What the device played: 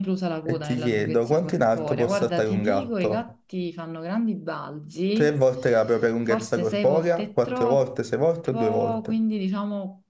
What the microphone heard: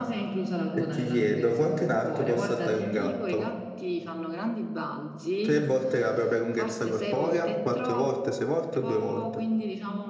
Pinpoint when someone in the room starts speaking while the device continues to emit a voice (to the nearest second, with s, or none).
none